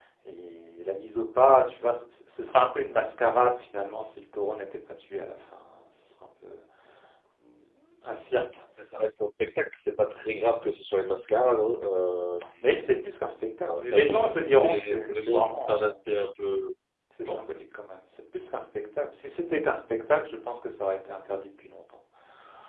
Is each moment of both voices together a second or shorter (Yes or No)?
No